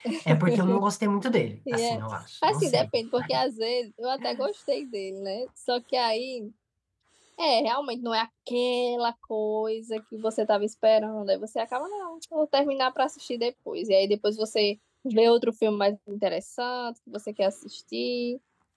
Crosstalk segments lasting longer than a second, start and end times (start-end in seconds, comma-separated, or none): none